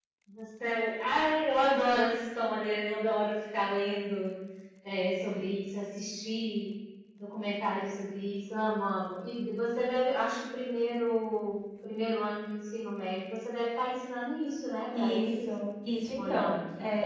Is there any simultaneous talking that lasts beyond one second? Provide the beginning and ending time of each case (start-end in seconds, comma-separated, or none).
none